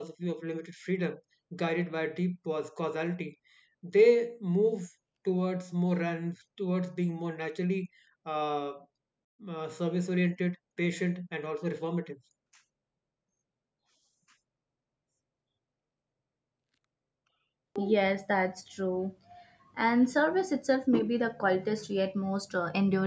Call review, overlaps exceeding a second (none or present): none